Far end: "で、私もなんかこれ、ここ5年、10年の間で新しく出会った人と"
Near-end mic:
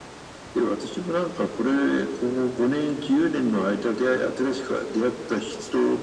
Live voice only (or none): none